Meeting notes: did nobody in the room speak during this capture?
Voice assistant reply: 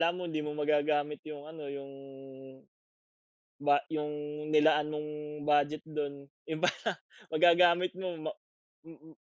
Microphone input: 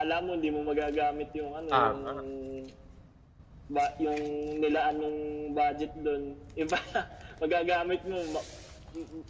No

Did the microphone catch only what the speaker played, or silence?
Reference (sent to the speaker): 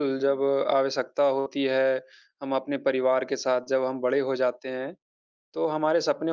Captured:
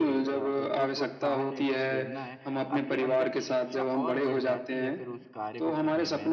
No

